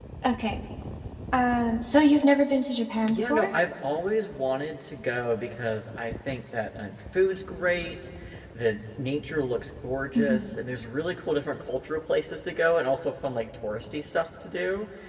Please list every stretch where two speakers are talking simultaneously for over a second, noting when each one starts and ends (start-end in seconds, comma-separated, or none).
none